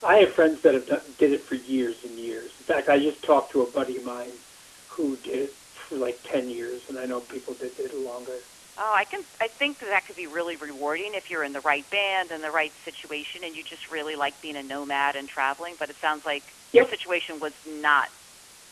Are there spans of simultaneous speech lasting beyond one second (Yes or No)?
No